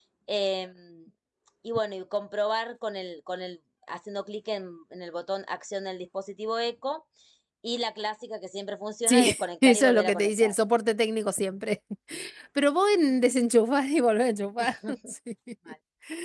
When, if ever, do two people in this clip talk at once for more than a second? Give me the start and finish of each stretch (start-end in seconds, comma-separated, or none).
9.1-10.5